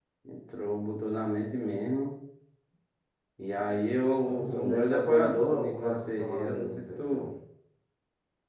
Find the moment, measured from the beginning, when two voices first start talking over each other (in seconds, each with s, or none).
4.3 s